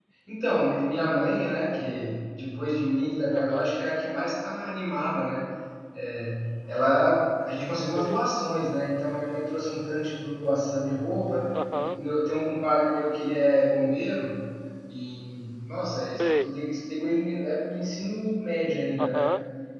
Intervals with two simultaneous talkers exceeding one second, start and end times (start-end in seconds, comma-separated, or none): none